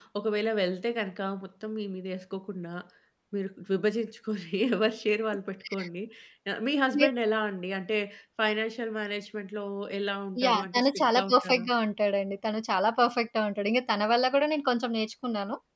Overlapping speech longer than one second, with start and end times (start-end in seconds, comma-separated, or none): 10.4-11.7